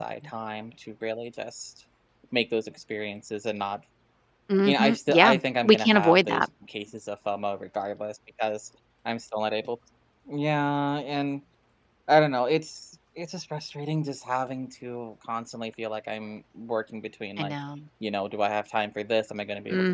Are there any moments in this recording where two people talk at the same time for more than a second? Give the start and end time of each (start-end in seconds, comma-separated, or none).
4.7-6.5